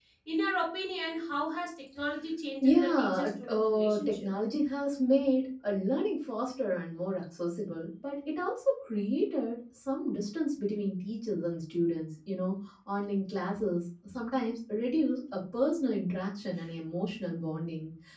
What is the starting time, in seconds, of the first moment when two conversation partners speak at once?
2.6 s

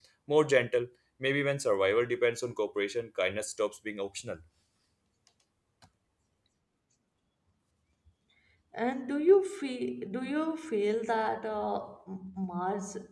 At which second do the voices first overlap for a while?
none

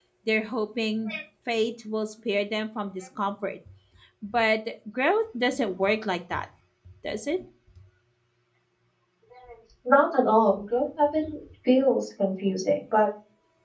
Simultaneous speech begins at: none

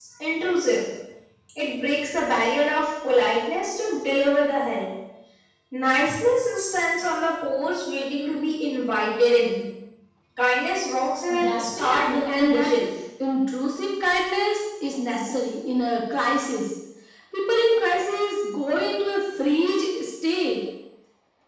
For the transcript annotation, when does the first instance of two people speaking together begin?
11.3 s

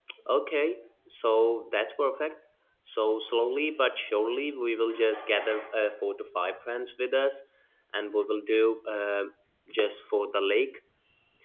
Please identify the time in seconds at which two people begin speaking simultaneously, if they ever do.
none

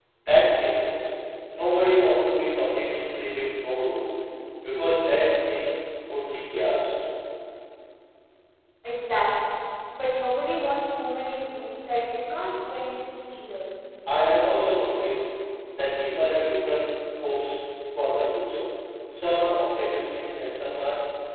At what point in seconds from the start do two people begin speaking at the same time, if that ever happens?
none

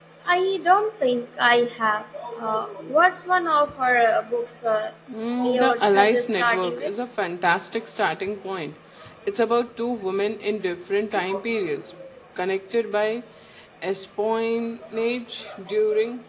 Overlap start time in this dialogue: 5.4 s

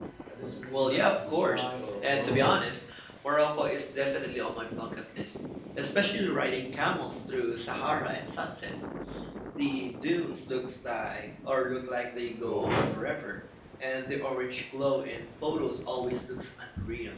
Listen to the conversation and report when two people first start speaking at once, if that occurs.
0.7 s

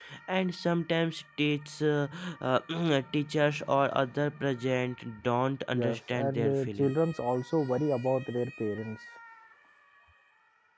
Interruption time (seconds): 5.7 s

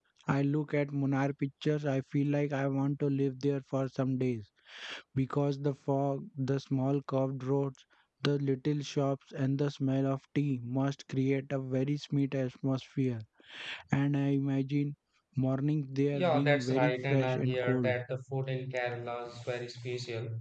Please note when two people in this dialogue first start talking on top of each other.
16.1 s

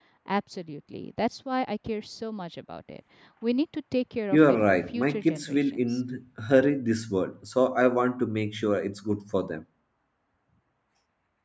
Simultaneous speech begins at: 4.3 s

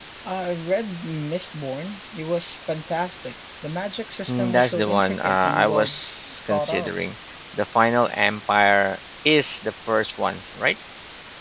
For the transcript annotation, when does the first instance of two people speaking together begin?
4.3 s

